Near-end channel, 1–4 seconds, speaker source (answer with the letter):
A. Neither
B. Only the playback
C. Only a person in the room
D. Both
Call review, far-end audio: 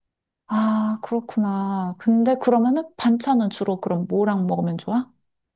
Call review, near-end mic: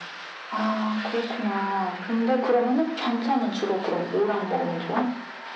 B